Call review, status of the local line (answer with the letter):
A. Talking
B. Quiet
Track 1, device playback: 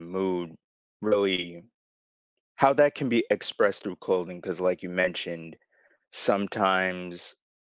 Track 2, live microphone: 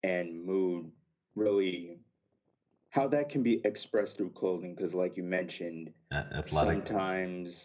A